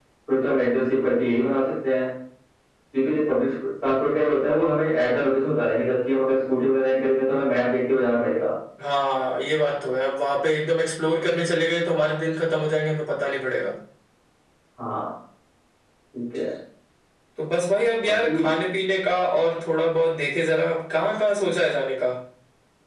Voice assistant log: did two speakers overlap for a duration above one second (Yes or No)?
No